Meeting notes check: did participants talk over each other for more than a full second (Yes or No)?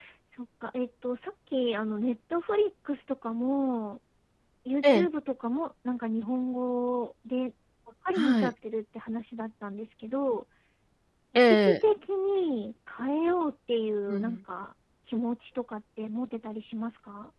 No